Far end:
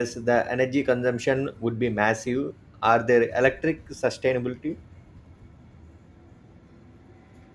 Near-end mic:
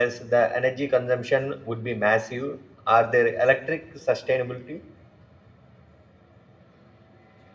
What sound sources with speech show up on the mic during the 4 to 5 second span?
echo only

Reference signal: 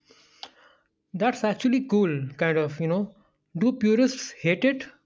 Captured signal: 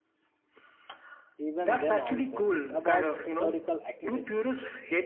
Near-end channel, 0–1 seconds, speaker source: neither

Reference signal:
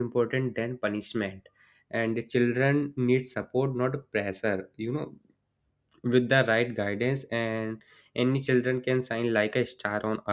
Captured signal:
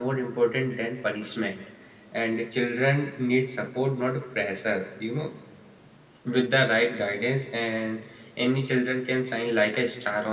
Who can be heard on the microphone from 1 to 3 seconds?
echo only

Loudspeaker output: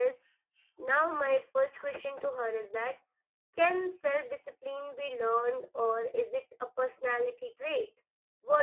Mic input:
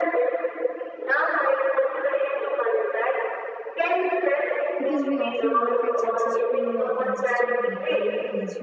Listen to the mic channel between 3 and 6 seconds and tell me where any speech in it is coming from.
both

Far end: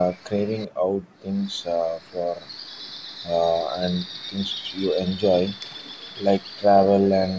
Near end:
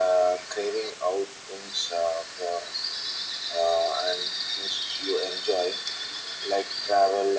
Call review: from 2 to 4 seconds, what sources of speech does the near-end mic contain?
echo only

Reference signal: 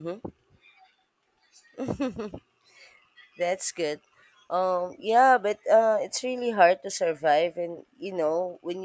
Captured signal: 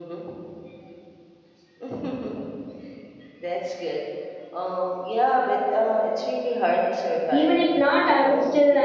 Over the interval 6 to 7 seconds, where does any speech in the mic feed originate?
echo only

